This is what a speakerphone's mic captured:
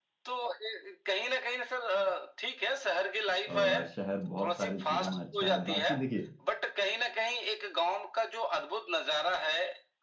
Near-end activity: present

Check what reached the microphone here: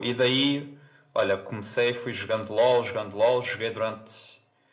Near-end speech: none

